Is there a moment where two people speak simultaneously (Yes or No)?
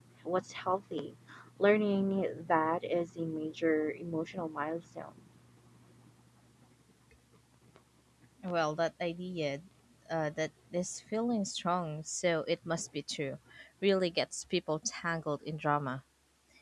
No